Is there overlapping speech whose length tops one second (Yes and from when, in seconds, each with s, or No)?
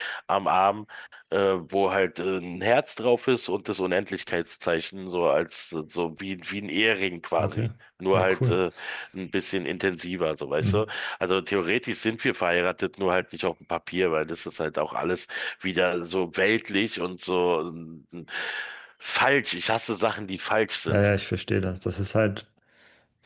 No